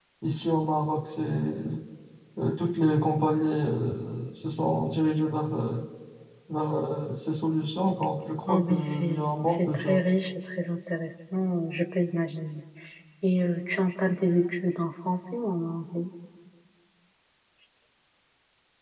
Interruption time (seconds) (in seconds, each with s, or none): 8.5 s